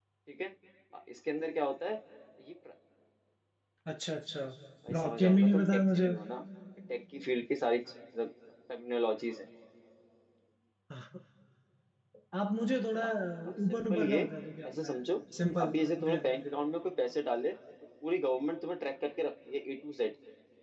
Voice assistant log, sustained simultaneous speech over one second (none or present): present